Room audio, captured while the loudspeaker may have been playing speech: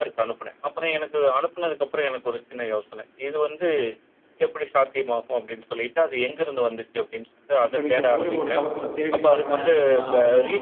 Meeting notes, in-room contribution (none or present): present